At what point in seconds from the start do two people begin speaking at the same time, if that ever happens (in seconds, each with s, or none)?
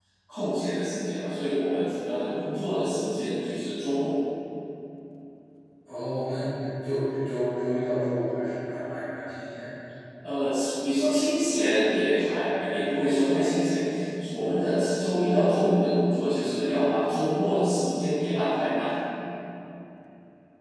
none